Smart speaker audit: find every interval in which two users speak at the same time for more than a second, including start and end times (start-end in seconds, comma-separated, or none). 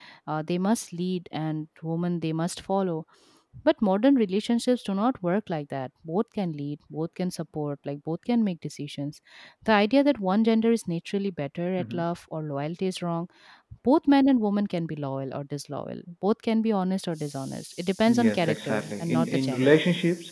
18.1-19.7